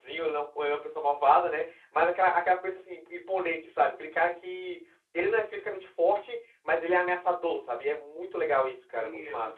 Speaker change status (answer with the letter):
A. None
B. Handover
B